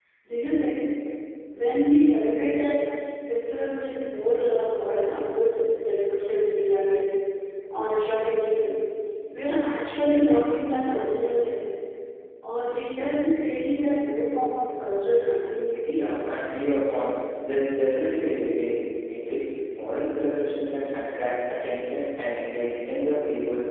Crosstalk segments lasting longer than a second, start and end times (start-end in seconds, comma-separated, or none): none